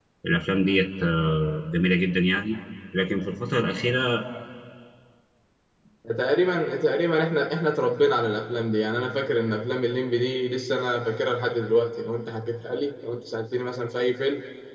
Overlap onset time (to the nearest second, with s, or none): none